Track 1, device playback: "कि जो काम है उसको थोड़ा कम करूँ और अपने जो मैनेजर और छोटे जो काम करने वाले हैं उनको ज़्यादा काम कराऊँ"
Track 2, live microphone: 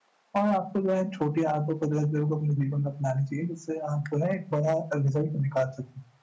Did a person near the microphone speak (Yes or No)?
Yes